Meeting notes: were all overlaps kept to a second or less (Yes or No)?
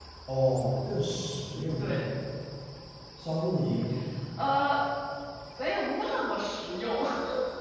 Yes